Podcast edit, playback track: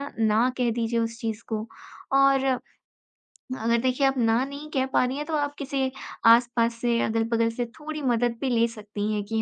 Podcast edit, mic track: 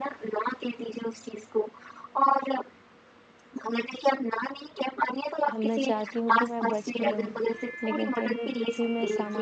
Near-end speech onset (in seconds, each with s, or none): 5.5 s